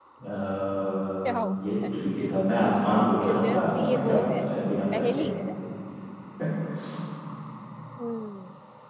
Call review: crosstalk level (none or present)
present